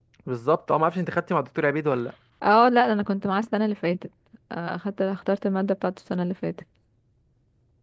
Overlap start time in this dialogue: none

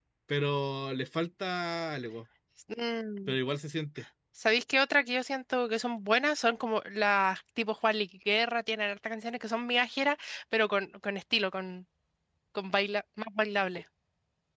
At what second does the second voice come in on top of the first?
none

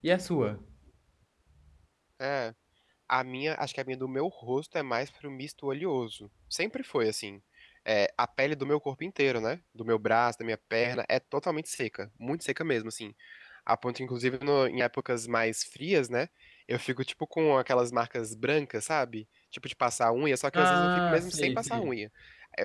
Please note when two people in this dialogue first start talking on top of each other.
20.5 s

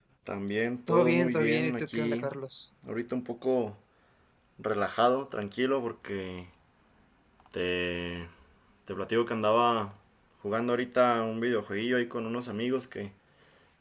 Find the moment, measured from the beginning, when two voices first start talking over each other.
0.9 s

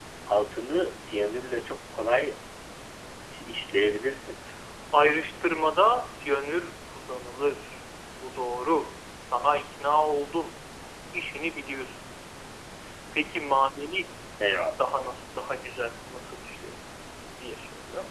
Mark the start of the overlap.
none

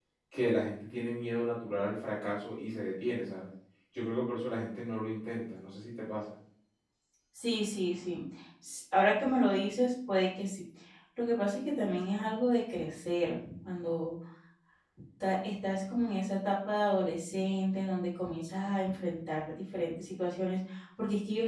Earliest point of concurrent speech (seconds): none

